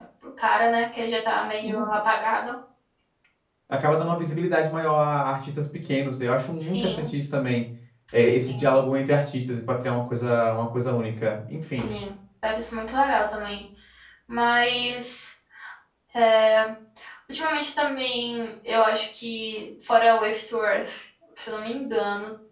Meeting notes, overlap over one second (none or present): none